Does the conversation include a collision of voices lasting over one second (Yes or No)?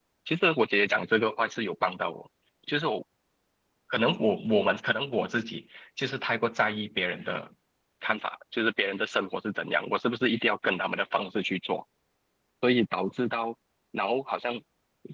No